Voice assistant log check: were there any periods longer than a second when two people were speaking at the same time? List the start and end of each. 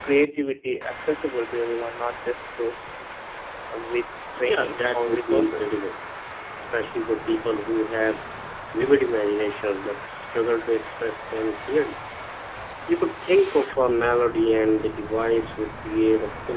4.4-5.8

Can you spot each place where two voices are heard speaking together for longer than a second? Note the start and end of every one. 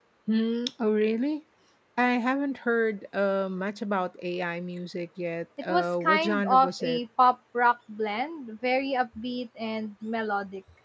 5.7-7.0

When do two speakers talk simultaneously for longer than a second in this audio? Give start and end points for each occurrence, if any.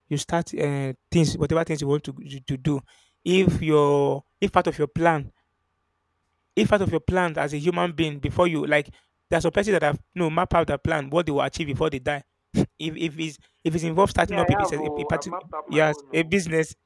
14.2-16.3

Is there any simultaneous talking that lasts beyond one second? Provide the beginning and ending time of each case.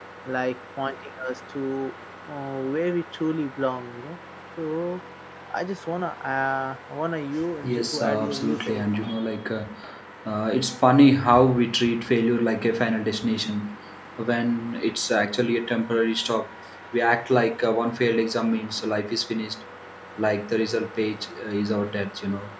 7.6-8.8

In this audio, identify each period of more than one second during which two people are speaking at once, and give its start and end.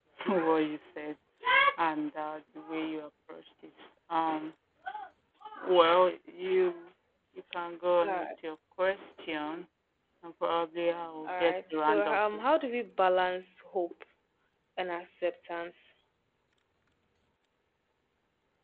11.3-12.7

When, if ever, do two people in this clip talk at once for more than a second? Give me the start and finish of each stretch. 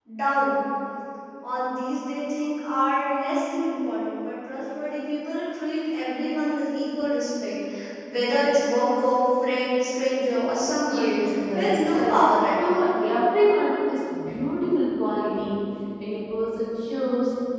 11.5-12.9

